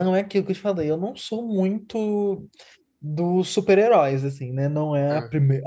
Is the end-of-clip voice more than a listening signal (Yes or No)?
No